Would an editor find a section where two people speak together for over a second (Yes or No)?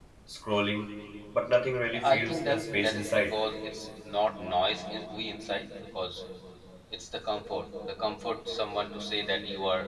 Yes